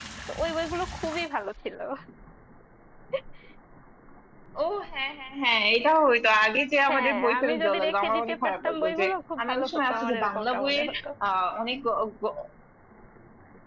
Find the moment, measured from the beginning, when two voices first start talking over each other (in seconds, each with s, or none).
6.9 s